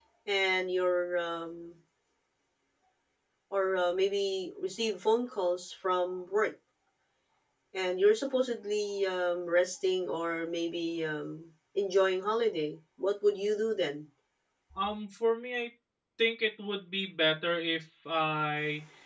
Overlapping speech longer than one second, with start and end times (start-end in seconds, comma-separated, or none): none